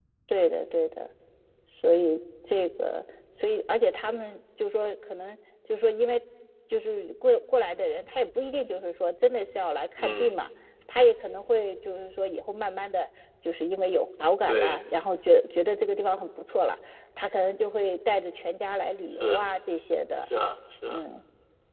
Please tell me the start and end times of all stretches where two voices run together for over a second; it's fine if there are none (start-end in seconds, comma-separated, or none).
none